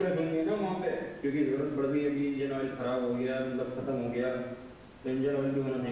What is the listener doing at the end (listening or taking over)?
taking over